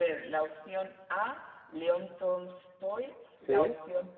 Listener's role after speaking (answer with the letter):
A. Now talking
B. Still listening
B